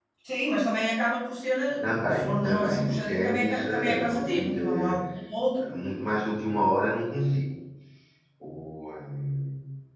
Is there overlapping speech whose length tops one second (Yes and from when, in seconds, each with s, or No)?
Yes, from 1.8 s